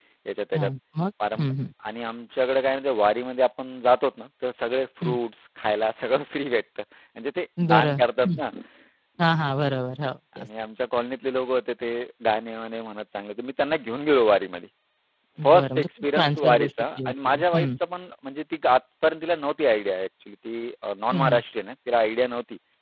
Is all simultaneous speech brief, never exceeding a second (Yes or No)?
No